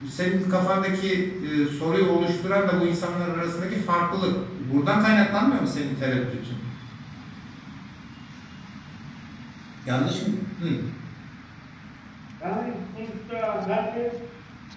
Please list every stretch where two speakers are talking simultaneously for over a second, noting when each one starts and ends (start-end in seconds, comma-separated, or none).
none